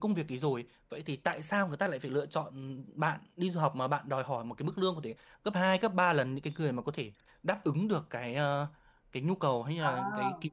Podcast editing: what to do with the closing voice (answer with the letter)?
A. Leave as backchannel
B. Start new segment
A